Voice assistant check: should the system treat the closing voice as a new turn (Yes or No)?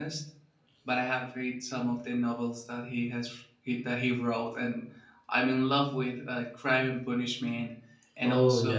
No